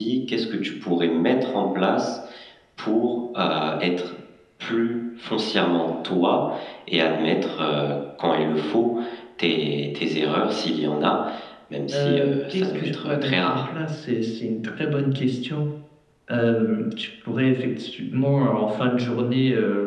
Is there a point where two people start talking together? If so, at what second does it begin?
11.9 s

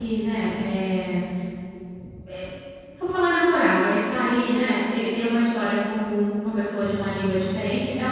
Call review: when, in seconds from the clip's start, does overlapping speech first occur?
none

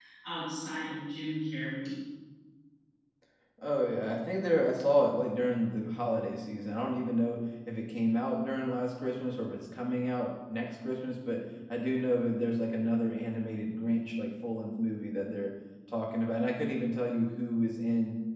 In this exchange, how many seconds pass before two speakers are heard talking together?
none

